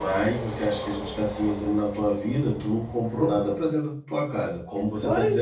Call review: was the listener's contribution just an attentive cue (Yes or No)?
No